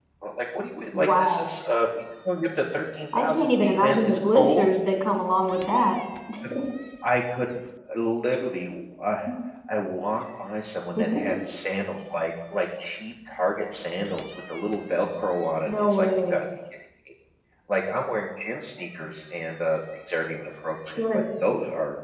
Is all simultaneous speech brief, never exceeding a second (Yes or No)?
No